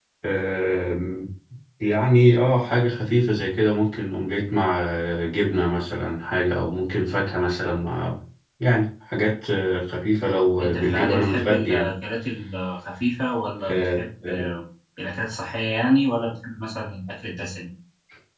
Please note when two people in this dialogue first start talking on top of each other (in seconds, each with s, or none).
10.6 s